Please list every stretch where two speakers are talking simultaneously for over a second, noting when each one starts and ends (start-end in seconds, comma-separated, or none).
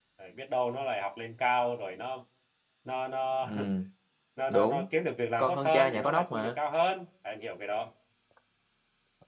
5.4-6.6